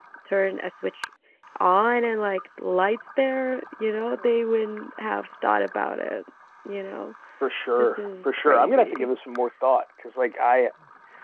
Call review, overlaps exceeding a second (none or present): present